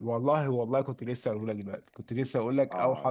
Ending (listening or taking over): taking over